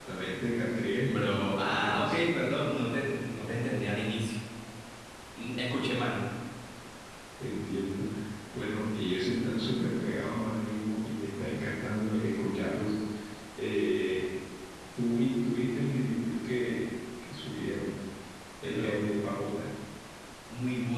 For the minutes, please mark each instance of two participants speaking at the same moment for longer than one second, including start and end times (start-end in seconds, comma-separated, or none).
1.0-2.2